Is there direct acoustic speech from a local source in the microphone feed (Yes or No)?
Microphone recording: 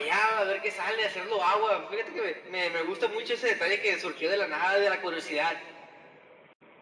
No